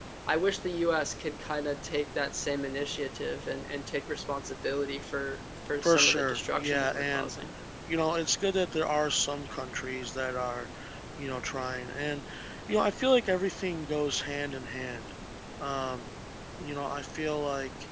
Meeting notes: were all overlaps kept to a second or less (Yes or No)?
No